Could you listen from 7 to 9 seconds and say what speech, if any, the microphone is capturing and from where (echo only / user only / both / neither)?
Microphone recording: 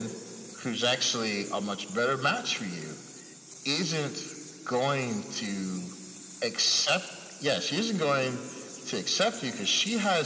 echo only